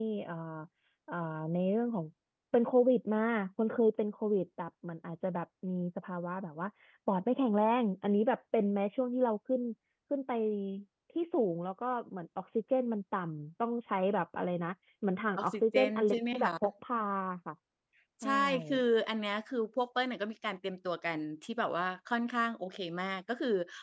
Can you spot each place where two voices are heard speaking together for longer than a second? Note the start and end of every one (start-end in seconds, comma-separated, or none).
15.4-16.7